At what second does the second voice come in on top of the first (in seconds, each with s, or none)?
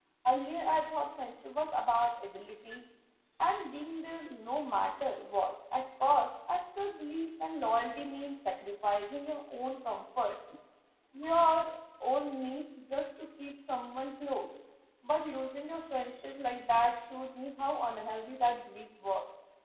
none